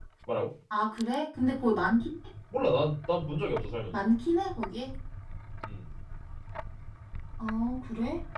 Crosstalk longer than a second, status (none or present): none